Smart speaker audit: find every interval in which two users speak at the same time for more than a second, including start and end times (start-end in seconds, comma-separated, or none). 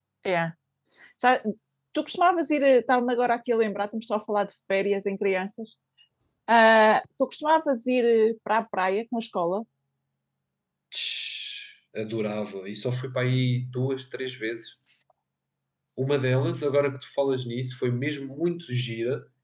none